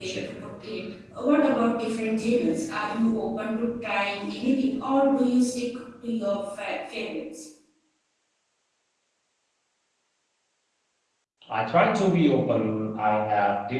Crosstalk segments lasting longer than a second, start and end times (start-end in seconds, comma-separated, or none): none